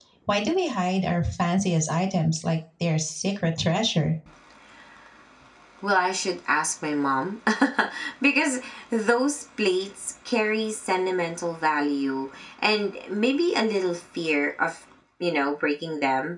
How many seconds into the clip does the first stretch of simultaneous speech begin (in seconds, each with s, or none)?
none